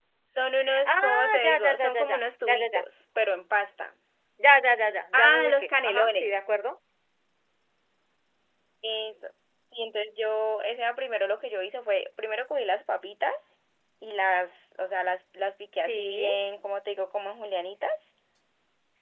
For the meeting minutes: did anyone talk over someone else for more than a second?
Yes, from 0.9 s

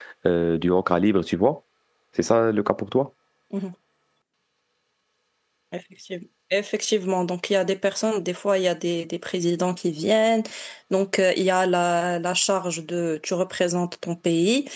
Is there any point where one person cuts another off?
No

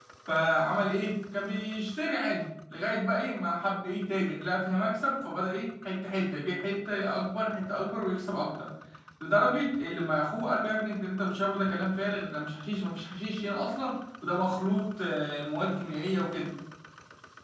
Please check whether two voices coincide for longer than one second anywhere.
No

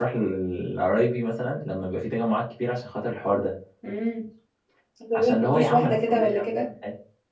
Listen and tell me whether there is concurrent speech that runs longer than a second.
Yes, from 5.2 s

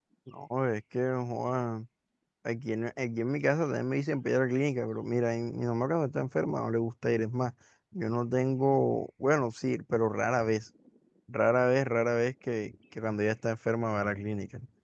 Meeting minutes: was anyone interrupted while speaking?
No

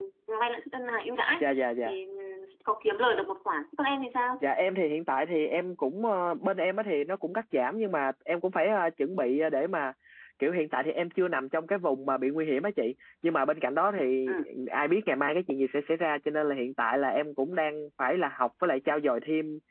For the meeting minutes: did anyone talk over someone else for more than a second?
No

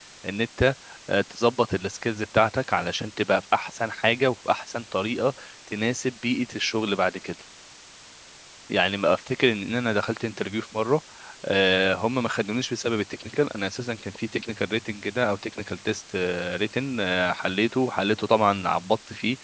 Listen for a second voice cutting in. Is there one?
No

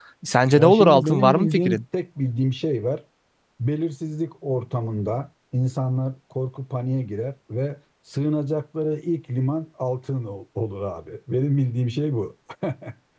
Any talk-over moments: Yes, from 0.5 s

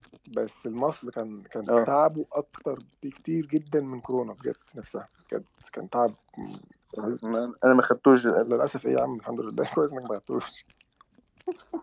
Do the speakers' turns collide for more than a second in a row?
No

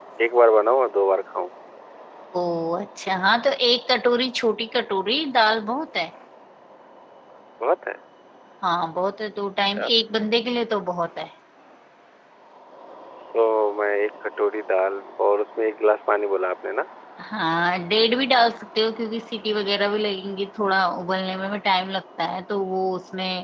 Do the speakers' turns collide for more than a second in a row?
No

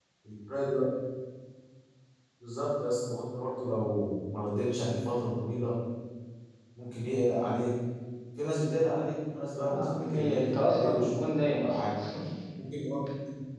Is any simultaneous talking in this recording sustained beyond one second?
Yes, from 9.5 s

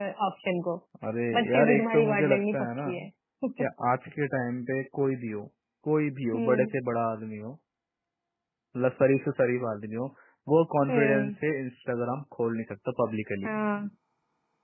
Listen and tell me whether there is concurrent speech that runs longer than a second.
Yes, from 1.3 s

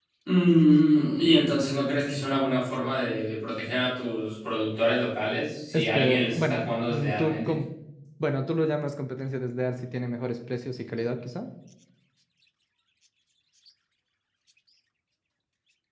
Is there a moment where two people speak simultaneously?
Yes, from 5.7 s

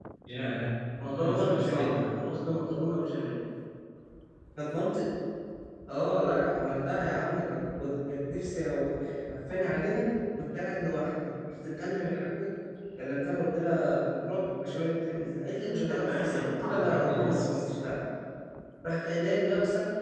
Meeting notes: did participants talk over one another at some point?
Yes, from 1.0 s

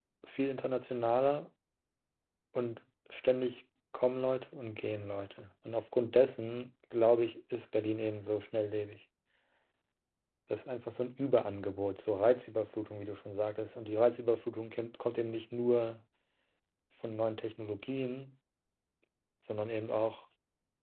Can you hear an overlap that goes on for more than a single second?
No

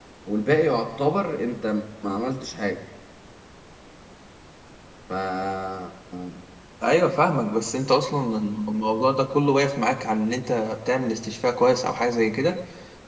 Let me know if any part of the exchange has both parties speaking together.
No

